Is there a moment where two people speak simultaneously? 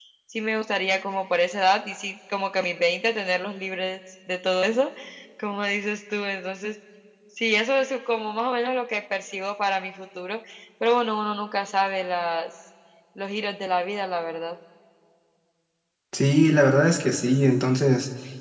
No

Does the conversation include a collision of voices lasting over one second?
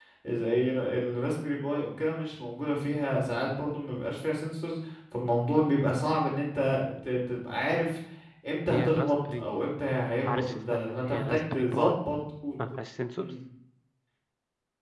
Yes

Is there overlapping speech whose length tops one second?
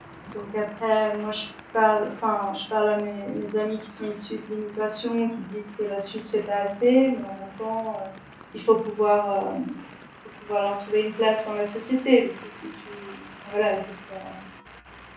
No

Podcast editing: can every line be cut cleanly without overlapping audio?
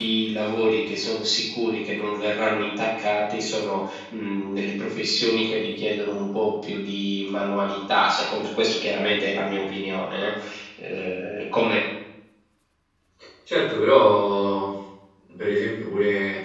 Yes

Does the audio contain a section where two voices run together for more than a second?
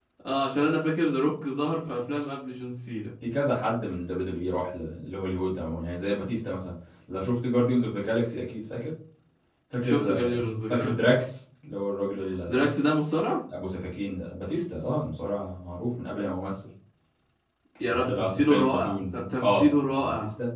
Yes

